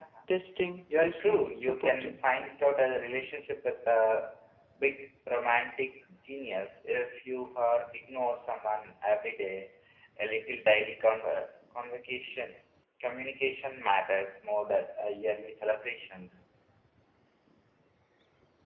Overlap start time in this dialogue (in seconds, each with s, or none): 1.0 s